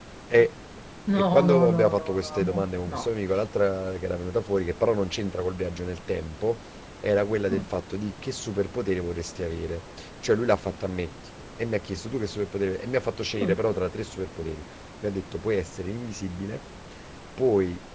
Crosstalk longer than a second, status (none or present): present